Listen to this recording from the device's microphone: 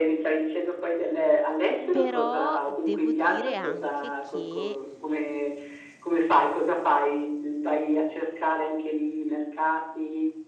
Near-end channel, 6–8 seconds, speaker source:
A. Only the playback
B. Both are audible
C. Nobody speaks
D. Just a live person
A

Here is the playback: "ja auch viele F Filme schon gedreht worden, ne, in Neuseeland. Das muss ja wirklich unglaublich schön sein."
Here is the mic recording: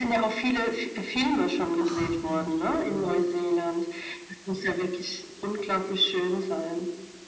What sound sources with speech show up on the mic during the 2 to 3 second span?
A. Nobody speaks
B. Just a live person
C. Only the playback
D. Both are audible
D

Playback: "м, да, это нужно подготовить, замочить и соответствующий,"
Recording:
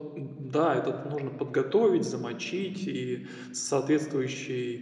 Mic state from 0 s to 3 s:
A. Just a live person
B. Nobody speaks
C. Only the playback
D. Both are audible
C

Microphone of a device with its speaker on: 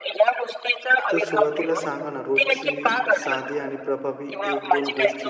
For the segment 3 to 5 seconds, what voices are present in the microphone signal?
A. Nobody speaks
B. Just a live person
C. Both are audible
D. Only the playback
C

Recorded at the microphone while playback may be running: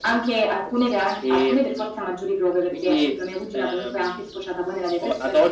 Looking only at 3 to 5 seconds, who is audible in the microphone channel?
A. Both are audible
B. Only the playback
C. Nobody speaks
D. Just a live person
B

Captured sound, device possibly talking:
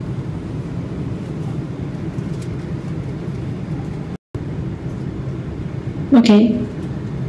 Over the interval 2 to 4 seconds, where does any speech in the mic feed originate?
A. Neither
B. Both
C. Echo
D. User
A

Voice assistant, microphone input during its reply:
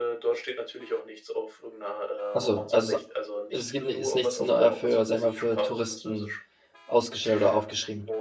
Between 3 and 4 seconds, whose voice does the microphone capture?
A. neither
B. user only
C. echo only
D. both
D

